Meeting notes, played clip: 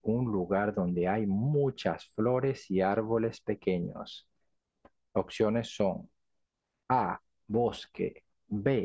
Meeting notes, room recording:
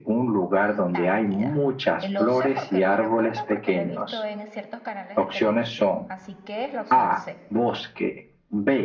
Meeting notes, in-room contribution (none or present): present